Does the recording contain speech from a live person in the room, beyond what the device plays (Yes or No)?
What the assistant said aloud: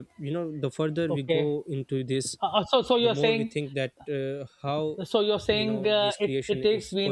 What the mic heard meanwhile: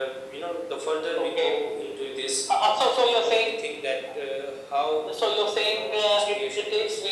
No